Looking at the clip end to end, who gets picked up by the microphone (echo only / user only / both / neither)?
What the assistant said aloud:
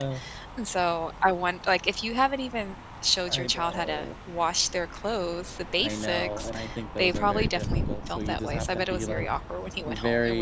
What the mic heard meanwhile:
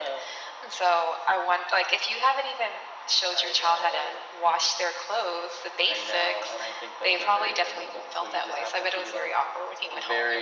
echo only